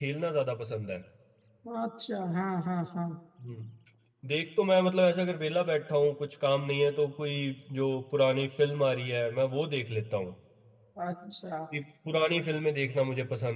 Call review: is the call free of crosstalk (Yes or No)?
Yes